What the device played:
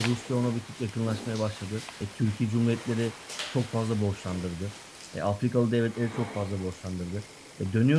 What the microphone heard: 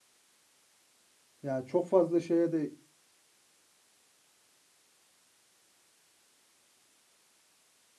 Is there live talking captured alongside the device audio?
Yes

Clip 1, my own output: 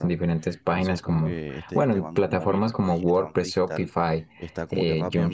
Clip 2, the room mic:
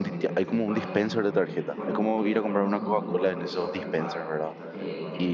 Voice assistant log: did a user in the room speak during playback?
Yes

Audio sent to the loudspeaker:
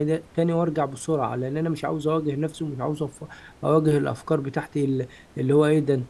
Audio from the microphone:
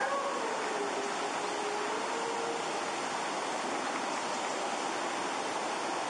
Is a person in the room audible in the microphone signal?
No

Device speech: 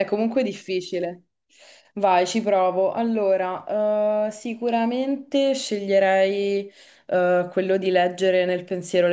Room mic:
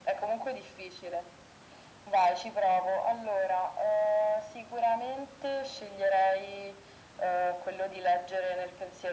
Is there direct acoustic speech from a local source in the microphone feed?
No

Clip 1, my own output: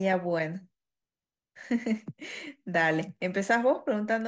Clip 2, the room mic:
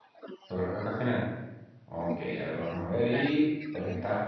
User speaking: Yes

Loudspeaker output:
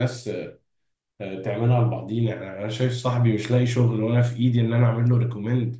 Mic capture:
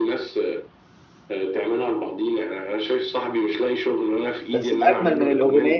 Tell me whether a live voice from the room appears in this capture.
Yes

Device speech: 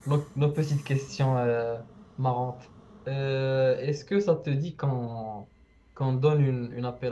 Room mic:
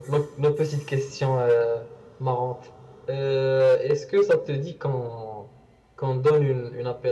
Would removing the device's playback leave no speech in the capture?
Yes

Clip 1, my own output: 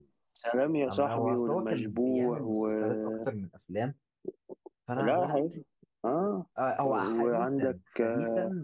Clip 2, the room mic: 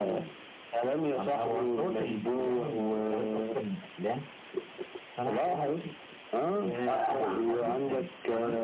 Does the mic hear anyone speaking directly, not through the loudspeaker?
Yes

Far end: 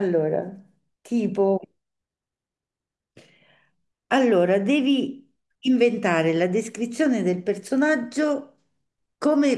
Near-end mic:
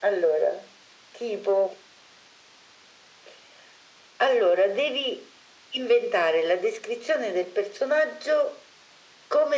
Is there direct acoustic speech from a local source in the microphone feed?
No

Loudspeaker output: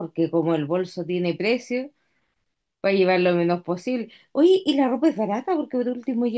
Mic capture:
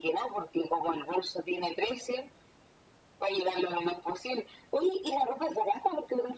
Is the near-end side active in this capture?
No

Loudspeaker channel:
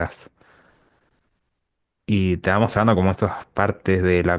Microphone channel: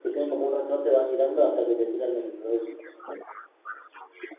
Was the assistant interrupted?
Yes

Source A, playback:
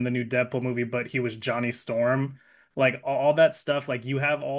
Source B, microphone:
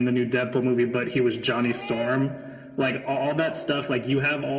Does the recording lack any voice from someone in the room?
Yes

